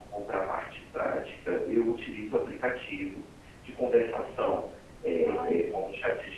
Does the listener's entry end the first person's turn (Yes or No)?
No